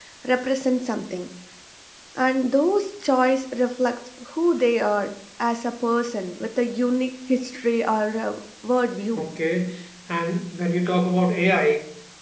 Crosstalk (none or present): none